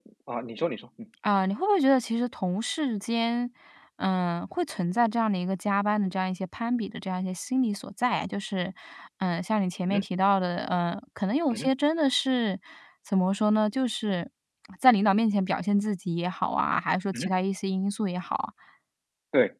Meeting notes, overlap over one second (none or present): none